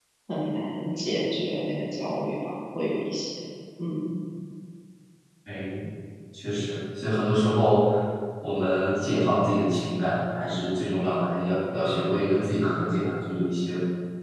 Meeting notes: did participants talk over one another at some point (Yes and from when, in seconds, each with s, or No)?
No